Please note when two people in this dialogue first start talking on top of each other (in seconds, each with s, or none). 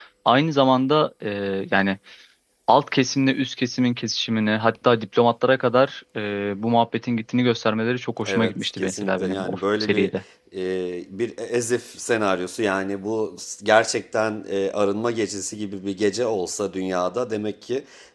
8.3 s